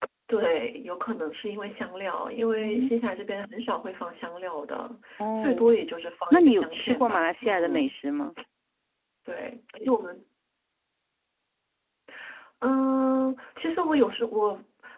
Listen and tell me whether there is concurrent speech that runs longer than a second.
Yes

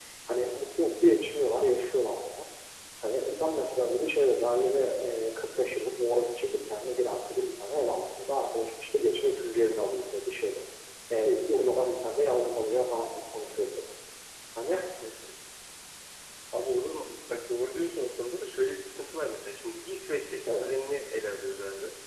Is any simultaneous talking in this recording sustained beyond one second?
No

